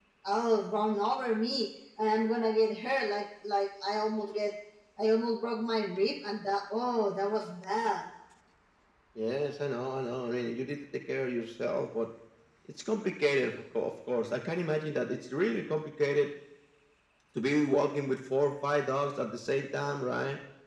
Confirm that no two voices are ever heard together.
Yes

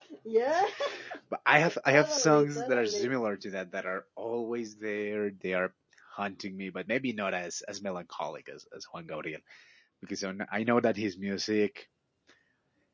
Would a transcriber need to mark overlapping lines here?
Yes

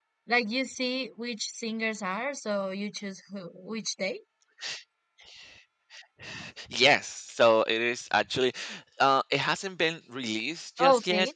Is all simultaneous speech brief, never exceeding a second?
Yes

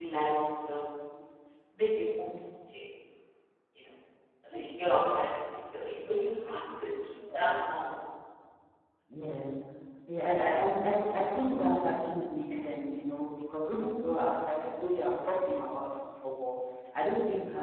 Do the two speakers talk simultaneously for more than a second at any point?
No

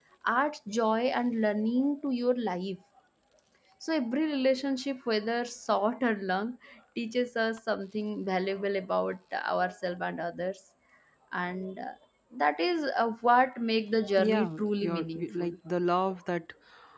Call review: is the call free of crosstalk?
No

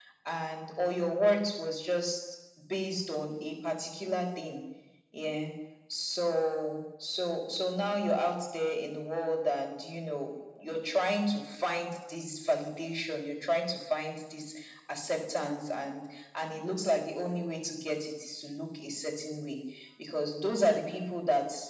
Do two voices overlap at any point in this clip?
No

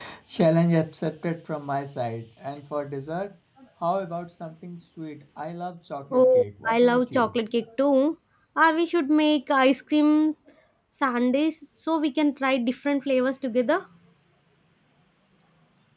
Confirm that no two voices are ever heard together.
No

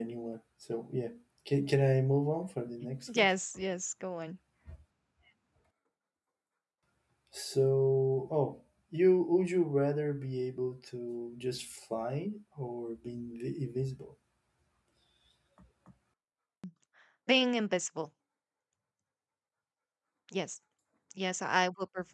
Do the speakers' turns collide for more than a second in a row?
No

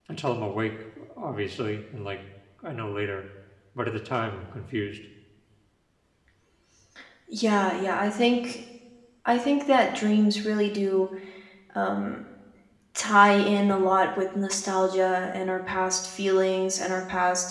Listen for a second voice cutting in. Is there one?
No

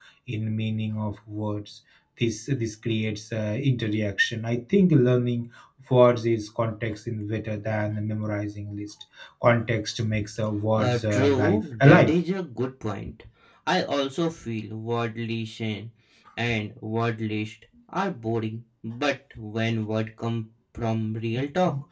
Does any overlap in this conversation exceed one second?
Yes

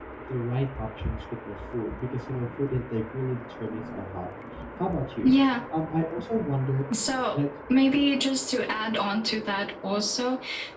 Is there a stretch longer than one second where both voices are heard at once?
No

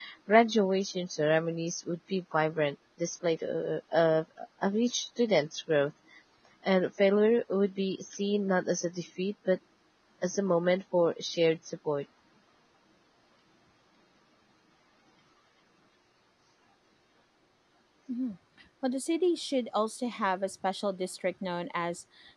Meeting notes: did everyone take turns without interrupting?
Yes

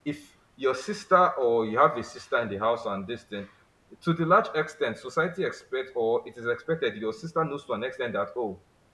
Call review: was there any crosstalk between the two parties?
No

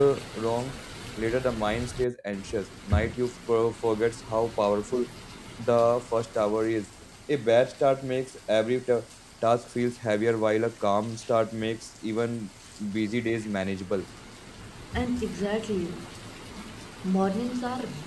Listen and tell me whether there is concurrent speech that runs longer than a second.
No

